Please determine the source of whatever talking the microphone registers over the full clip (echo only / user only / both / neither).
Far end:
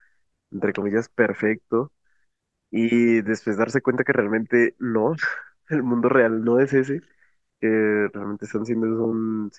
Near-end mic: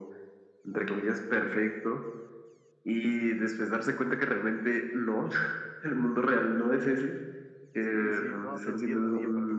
both